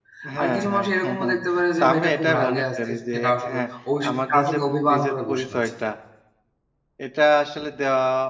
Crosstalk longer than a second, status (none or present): present